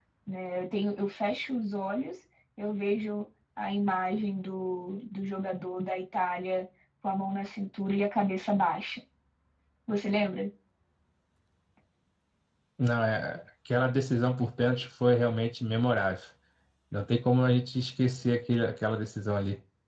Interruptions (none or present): none